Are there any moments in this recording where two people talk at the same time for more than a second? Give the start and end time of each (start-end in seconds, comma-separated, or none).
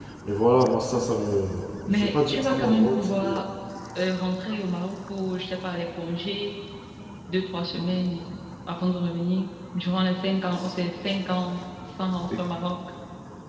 1.9-3.4